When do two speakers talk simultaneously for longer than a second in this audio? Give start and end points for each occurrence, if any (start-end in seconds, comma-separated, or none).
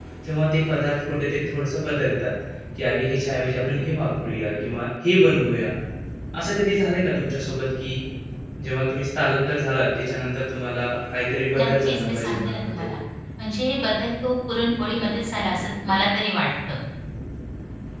11.5-12.9